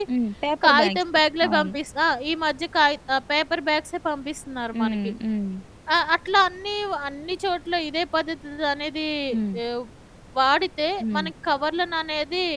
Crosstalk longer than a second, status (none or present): none